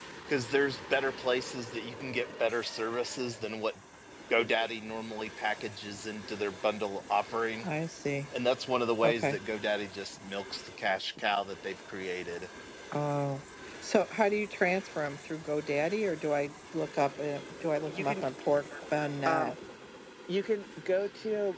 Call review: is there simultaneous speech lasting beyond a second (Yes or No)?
No